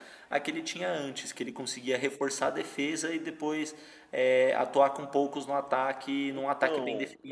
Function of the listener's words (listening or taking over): taking over